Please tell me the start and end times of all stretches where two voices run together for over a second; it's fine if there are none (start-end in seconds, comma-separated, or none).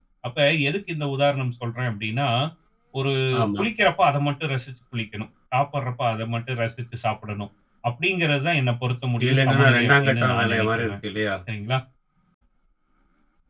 9.2-10.9